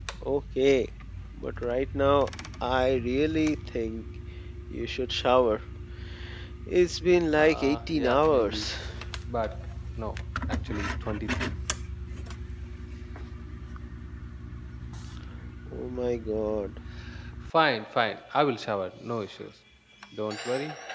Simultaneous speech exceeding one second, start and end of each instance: 7.4-8.7

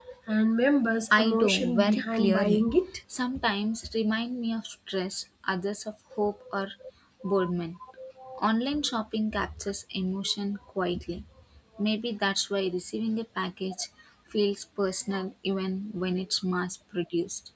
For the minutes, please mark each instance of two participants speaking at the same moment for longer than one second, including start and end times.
1.2-2.6

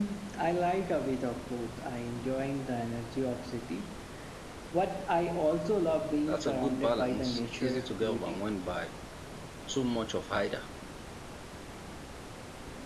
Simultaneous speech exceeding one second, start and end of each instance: 6.3-8.4

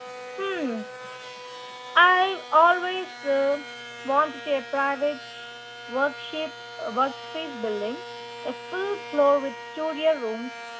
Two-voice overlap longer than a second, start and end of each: none

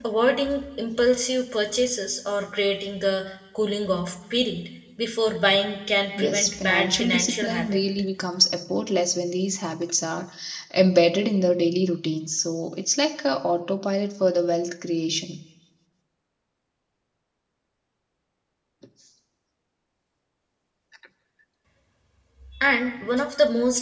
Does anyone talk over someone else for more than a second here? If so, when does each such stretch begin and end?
6.2-7.8

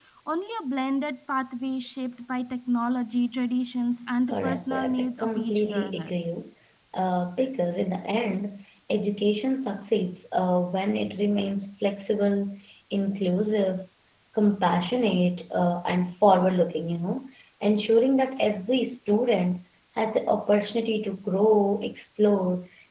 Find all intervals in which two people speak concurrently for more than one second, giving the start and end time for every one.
4.3-6.1

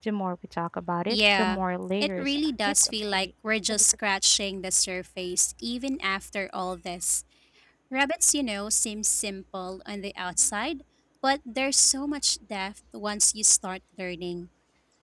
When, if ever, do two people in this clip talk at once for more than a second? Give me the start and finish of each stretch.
2.0-3.3

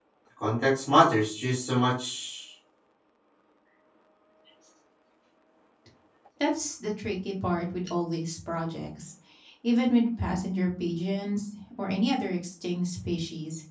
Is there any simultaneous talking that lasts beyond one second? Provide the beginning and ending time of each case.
none

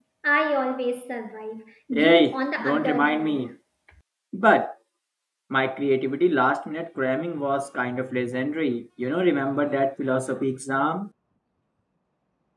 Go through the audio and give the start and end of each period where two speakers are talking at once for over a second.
1.9-3.5

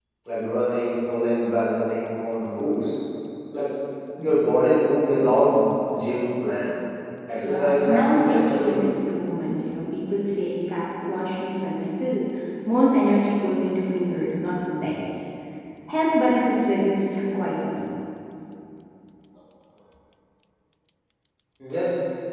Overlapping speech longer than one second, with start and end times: 7.4-8.8

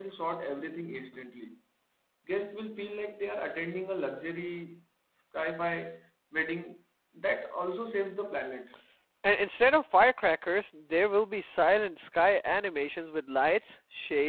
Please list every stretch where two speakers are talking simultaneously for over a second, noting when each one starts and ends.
none

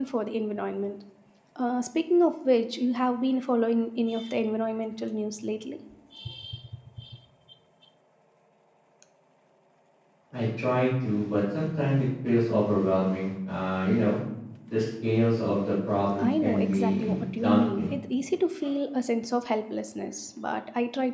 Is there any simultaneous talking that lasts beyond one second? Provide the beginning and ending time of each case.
16.2-17.9

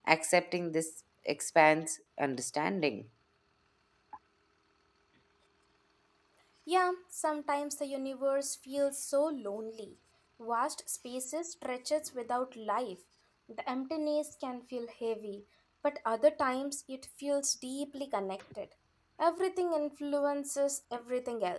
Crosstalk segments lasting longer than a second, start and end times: none

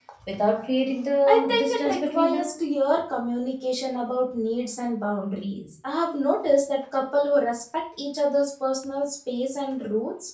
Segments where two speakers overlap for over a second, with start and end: 1.3-2.6

